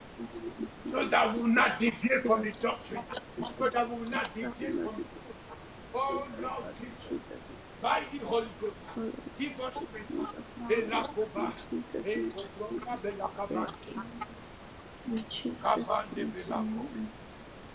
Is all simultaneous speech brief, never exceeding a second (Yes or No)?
No